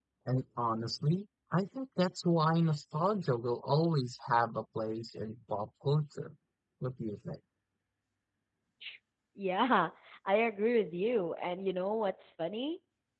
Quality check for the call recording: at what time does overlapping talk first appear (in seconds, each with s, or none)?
none